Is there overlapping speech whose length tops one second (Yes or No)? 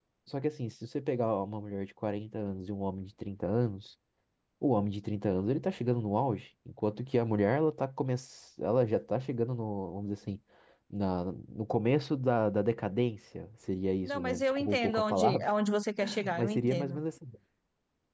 Yes